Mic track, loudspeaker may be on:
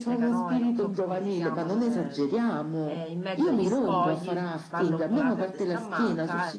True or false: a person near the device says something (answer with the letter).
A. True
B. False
A